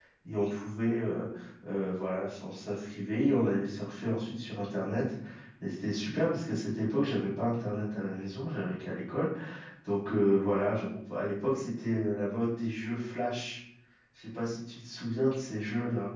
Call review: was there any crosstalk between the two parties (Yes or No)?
No